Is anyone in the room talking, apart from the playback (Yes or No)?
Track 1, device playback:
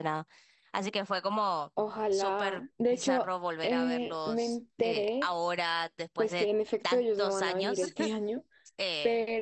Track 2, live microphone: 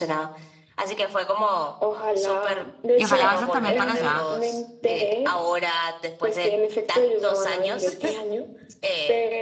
Yes